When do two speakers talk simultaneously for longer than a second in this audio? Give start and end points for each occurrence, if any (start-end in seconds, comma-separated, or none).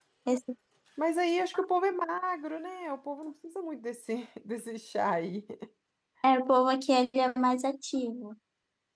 none